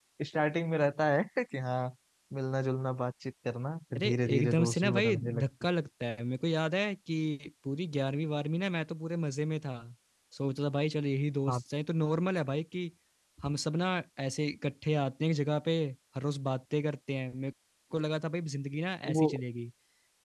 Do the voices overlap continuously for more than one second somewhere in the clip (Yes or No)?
Yes